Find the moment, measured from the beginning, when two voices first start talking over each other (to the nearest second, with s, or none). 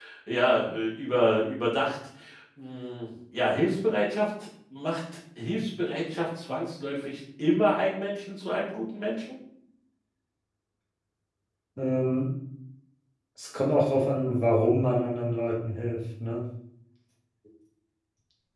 none